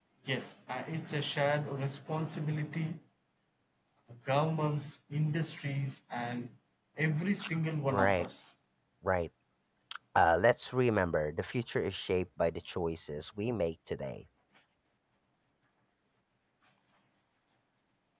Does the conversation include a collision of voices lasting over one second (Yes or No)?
No